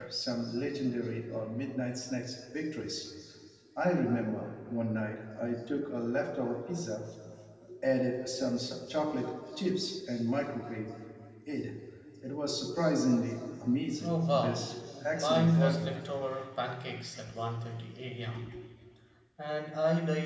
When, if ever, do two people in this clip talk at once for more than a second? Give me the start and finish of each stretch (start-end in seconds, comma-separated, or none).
14.0-15.9